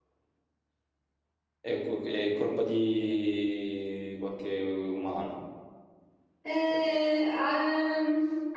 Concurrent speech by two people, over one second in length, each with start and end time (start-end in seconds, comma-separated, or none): none